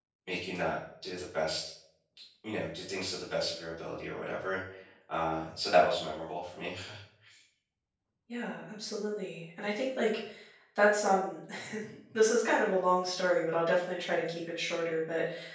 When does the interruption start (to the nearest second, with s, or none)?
none